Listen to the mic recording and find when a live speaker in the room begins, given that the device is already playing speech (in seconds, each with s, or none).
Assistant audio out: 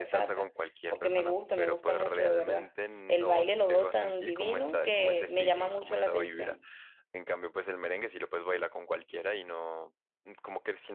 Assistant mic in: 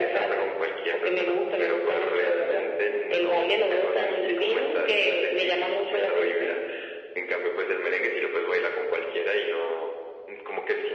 none